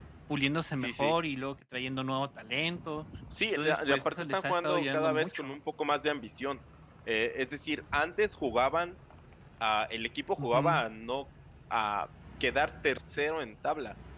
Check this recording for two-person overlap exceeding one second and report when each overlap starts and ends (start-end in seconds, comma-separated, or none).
3.6-5.5